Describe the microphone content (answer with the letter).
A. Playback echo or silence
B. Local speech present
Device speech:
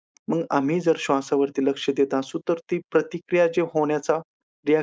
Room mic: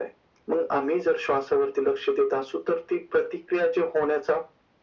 A